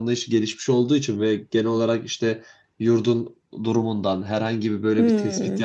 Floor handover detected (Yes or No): No